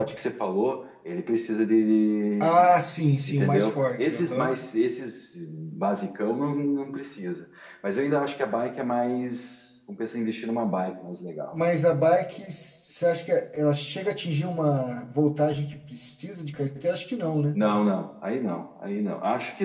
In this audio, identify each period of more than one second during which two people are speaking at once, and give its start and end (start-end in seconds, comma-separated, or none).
3.3-4.6